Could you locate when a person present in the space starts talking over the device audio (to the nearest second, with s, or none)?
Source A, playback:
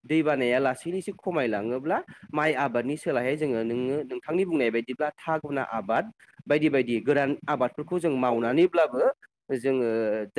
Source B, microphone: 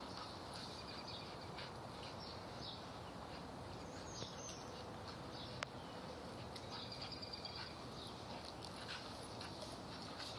none